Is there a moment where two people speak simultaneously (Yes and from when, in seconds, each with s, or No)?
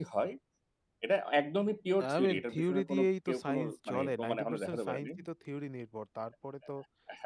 Yes, from 2.0 s